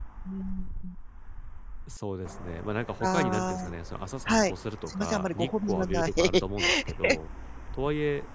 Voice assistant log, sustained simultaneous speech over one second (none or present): present